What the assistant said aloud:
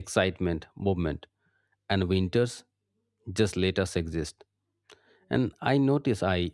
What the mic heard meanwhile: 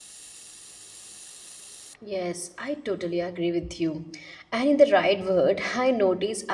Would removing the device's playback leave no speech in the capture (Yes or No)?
No